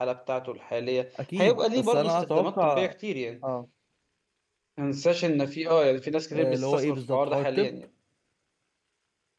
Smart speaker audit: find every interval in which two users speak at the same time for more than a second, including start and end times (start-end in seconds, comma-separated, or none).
1.4-2.9, 6.3-7.7